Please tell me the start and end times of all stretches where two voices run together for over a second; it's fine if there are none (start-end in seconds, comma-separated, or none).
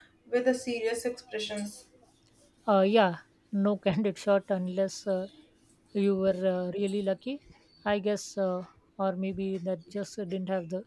none